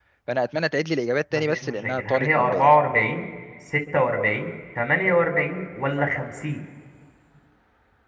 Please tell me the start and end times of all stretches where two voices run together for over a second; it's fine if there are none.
1.3-2.7

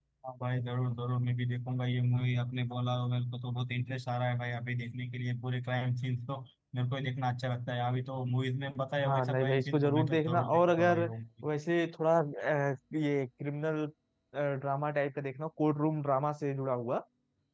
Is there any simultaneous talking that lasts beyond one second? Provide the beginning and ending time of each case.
9.0-11.0

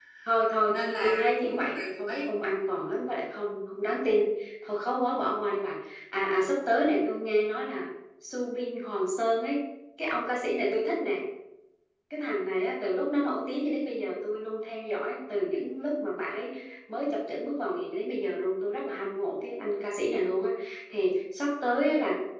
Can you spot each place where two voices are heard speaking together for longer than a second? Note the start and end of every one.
0.7-2.2

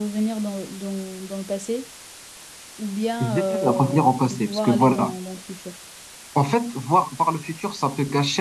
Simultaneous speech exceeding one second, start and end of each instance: 3.2-5.2

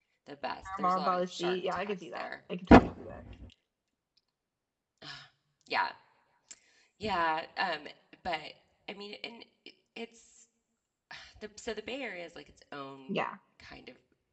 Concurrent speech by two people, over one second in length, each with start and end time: 0.8-2.3

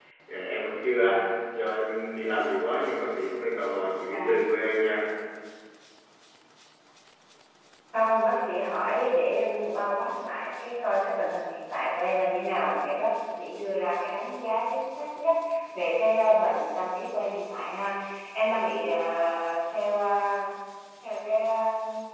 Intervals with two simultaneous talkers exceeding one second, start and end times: none

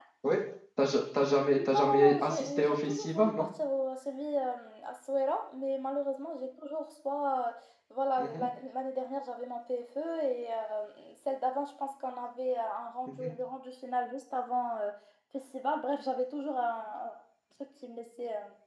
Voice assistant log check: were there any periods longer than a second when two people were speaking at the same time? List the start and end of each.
1.6-3.5

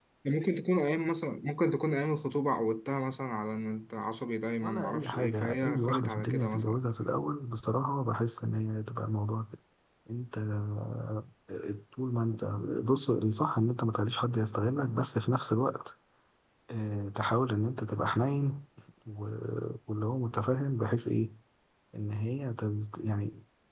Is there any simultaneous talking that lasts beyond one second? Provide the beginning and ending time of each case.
4.6-6.8

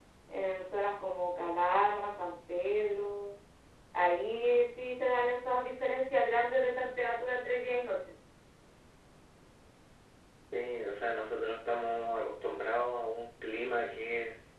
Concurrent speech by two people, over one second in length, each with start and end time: none

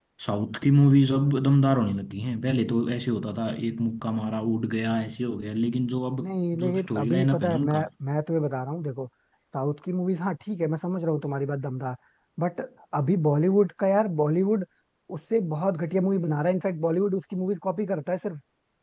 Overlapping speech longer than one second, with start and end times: 6.2-7.9

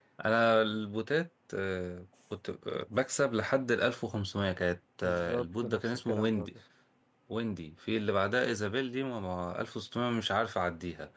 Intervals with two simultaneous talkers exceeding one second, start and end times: 5.0-6.5

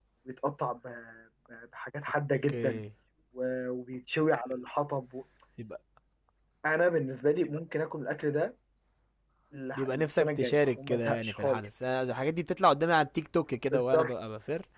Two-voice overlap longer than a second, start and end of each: 9.8-11.6

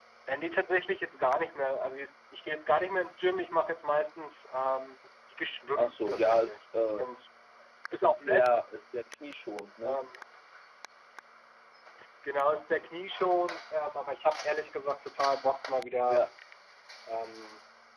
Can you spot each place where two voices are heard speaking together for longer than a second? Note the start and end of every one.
5.7-7.1

